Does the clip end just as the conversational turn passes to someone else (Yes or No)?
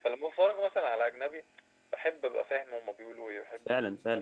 Yes